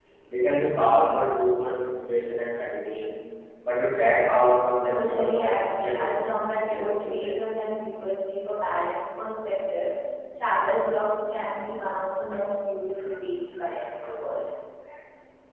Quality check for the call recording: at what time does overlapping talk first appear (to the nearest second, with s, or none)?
5 s